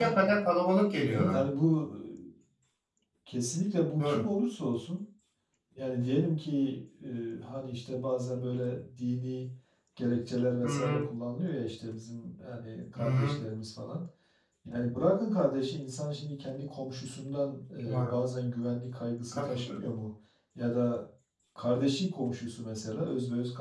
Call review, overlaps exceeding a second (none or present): none